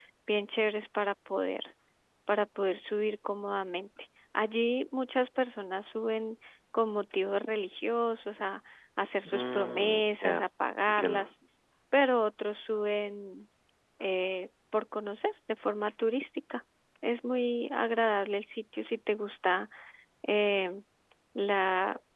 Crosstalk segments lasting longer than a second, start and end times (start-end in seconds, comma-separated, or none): 9.2-10.4